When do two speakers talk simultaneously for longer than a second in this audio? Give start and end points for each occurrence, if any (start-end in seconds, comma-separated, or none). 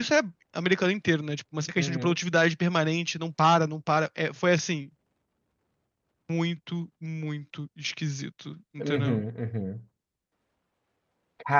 none